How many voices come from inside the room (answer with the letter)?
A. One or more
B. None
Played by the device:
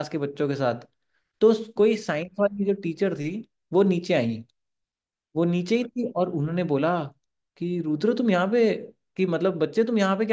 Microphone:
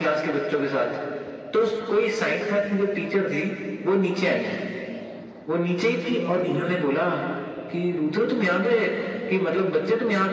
A